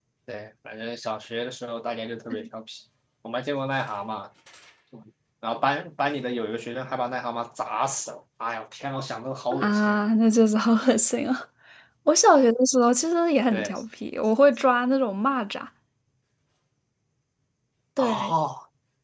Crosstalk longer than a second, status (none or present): none